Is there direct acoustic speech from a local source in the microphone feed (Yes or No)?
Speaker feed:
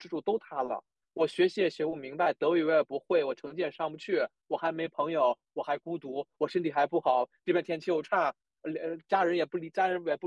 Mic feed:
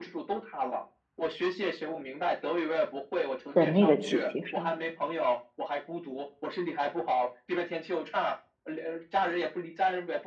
Yes